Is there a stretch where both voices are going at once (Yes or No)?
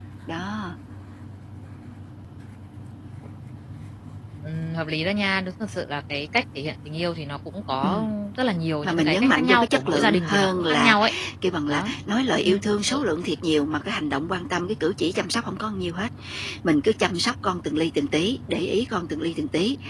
Yes